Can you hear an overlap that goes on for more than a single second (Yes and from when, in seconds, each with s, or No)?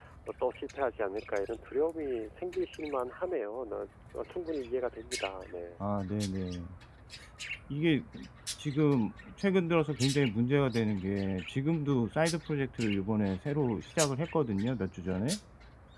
No